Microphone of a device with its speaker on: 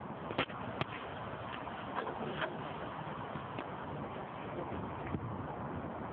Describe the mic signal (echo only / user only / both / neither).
neither